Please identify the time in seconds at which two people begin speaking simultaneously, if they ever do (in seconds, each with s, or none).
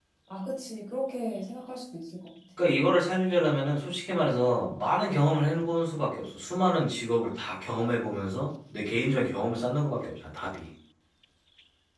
none